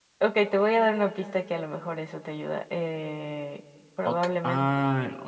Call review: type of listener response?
taking over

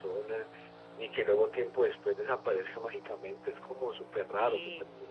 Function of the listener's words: taking over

